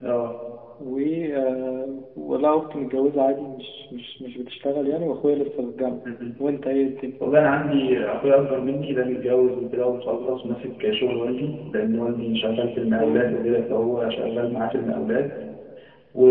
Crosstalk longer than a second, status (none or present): none